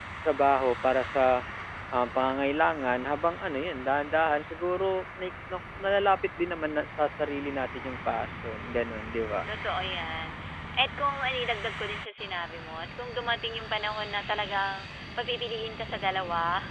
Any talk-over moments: No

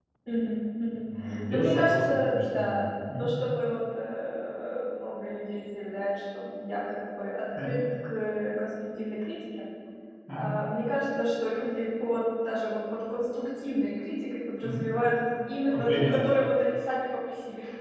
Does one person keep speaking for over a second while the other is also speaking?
Yes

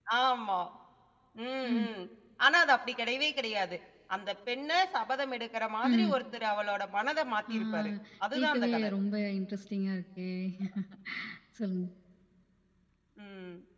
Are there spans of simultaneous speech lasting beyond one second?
No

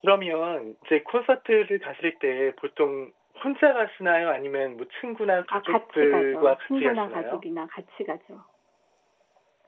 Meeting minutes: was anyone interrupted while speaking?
Yes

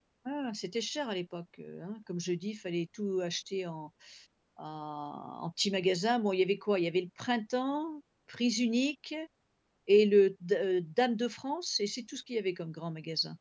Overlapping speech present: No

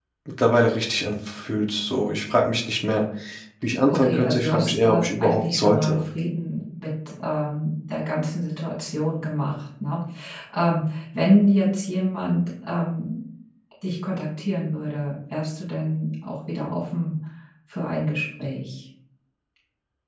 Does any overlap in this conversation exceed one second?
Yes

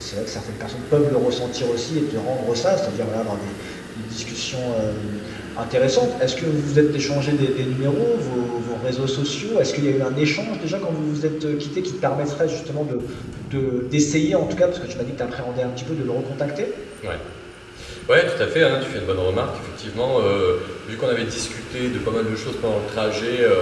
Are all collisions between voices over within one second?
Yes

